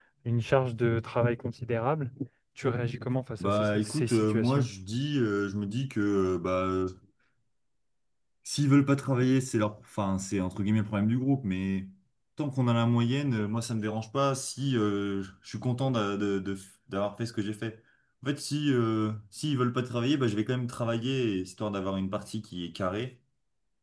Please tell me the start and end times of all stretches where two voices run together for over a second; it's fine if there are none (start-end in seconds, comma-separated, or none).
3.4-4.7